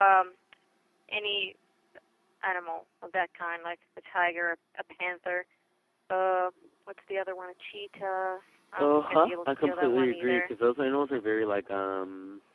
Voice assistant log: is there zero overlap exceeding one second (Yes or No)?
No